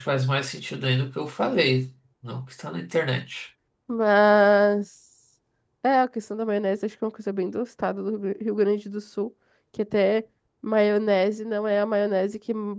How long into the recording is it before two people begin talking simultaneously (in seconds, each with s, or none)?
none